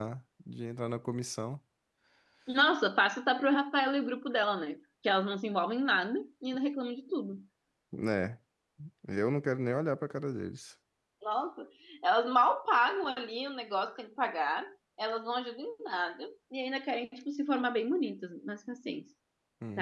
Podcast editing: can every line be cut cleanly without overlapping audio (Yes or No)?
Yes